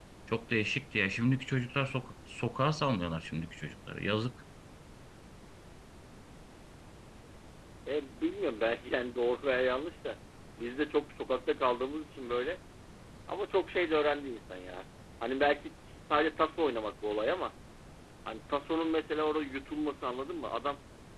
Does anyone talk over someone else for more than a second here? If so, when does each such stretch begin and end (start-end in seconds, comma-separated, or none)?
none